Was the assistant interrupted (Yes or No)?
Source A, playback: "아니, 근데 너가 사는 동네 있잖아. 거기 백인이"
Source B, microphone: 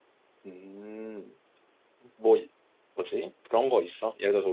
Yes